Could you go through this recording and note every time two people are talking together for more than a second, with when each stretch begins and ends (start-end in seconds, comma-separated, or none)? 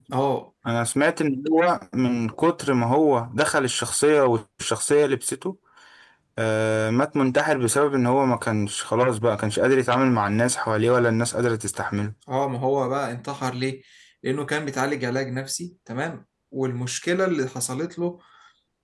none